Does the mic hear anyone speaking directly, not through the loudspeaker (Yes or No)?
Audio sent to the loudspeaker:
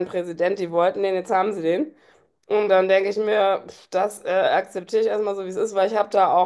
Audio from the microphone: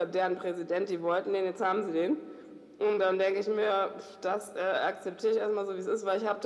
No